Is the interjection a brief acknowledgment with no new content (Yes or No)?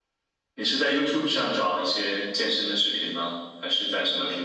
No